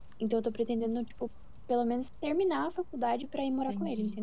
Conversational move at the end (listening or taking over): taking over